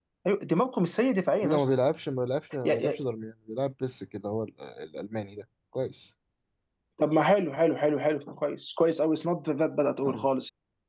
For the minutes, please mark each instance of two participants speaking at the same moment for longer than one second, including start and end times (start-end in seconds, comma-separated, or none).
none